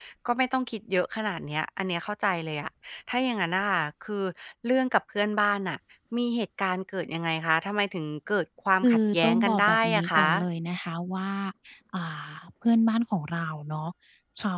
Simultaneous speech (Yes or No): Yes